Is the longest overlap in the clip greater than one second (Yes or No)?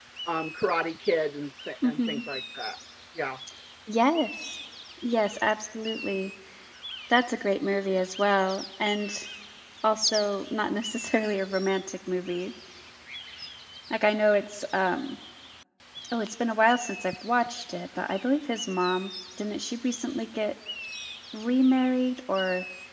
No